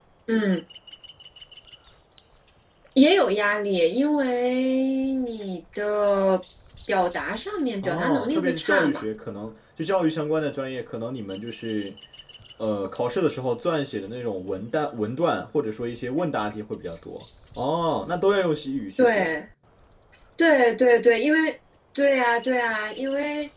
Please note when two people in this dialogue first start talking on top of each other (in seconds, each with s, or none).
7.8 s